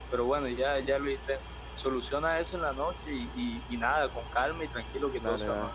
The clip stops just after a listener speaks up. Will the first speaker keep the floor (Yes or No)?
No